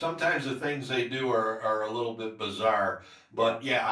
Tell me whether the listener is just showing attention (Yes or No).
Yes